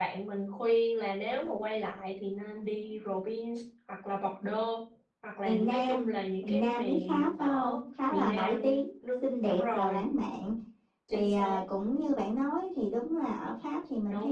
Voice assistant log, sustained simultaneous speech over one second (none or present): present